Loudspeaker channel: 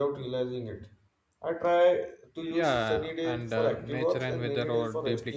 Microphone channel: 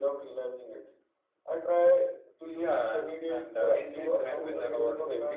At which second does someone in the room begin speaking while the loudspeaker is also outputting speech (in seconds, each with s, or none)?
3.6 s